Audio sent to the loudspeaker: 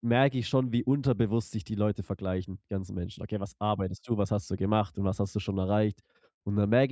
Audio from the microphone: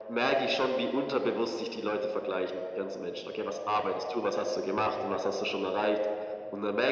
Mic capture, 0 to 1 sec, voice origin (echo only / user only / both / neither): echo only